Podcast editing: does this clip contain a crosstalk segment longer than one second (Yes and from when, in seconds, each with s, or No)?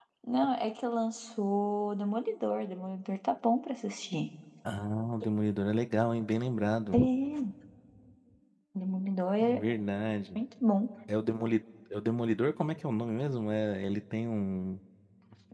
No